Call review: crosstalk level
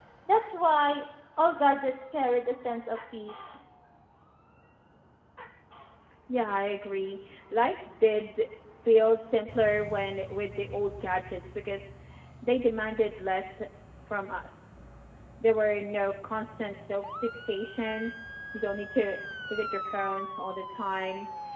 none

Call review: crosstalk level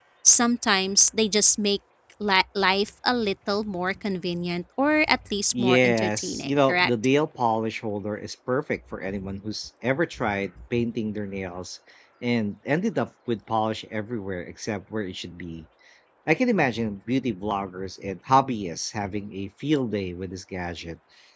present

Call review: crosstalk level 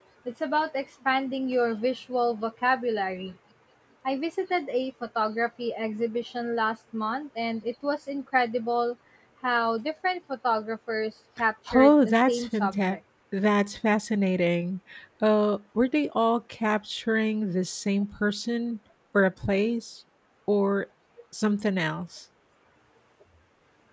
present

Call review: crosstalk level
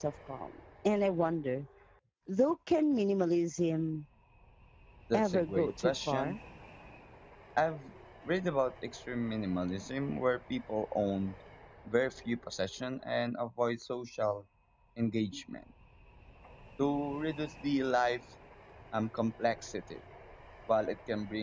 present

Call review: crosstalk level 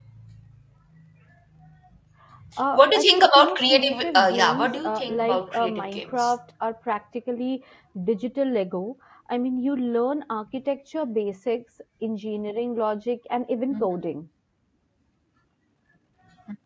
present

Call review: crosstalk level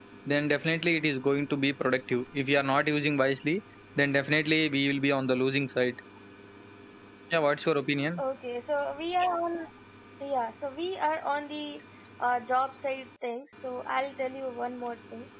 none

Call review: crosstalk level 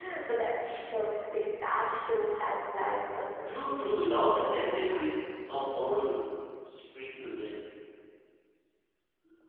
present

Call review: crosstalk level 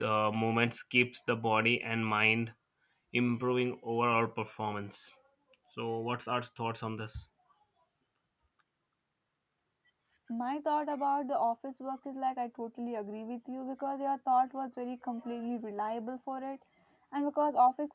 none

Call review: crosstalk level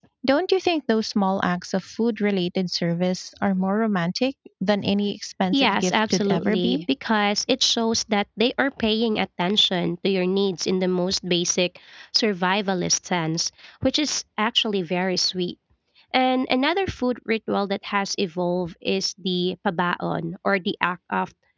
present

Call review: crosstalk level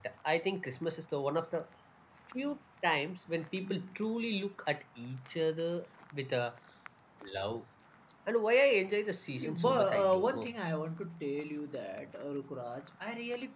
present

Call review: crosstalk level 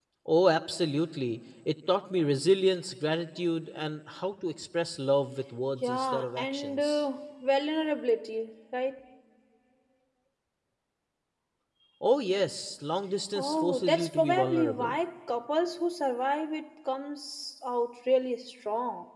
present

